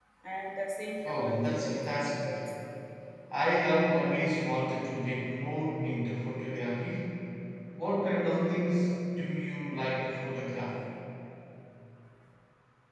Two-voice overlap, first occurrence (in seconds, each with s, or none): 1.0 s